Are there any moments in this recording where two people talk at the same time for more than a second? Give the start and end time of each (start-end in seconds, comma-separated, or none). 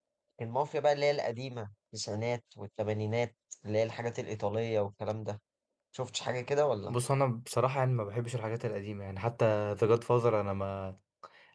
none